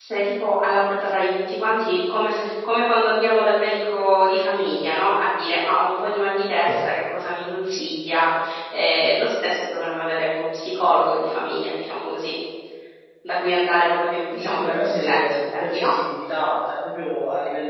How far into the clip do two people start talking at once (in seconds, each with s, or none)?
14.3 s